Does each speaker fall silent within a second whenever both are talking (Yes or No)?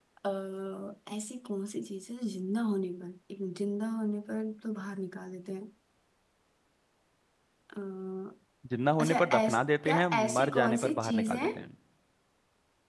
No